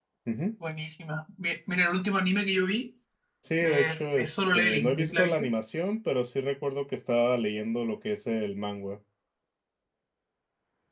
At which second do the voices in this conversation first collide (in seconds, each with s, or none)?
3.6 s